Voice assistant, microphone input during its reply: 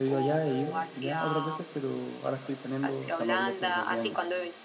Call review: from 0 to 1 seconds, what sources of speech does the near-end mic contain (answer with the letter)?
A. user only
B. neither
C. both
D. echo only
C